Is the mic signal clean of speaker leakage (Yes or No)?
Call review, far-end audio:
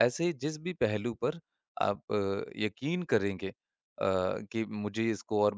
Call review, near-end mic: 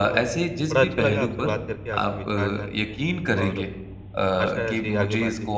No